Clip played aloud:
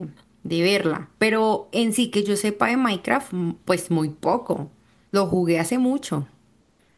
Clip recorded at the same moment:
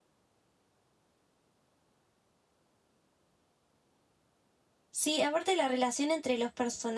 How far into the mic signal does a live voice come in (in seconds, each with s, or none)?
4.9 s